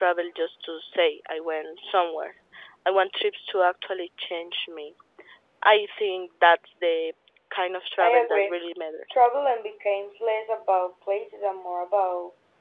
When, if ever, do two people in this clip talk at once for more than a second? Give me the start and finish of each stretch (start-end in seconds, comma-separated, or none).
none